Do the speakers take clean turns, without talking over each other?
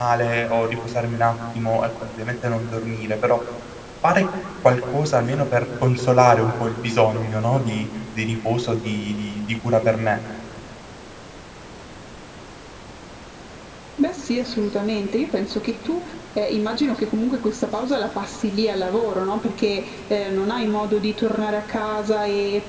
Yes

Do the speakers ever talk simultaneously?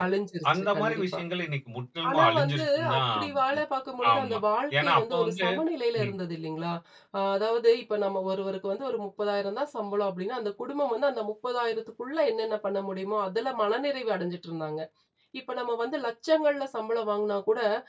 Yes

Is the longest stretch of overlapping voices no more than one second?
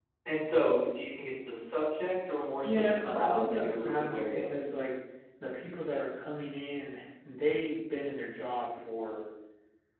No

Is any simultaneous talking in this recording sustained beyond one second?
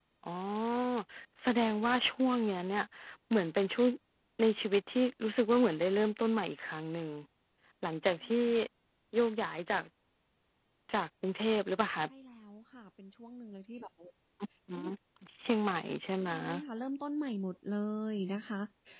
No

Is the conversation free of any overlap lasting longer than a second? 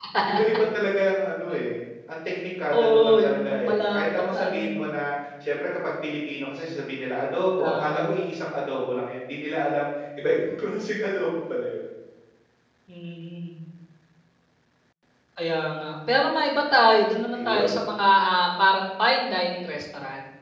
No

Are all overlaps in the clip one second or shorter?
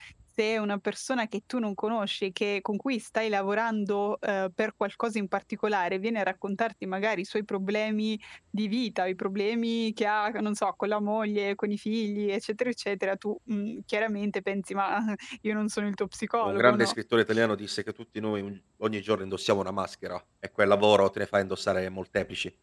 Yes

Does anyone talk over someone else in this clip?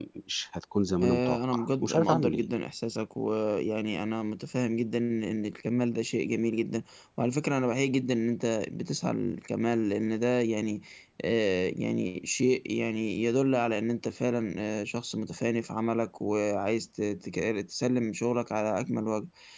Yes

